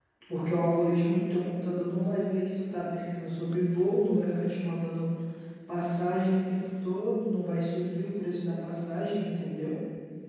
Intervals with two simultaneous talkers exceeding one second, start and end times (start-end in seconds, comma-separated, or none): none